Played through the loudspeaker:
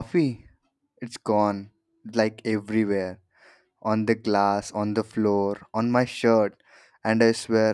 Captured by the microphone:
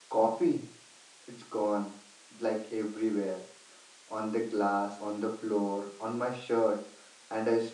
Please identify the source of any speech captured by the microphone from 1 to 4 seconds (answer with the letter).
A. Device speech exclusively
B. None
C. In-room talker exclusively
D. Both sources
A